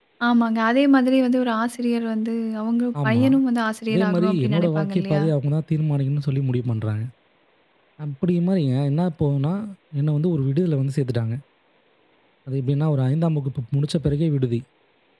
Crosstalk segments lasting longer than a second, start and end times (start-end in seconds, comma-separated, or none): 3.9-5.2